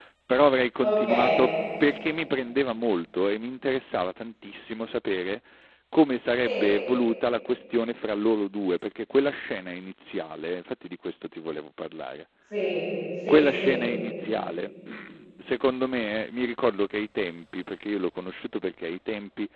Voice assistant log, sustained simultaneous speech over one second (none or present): none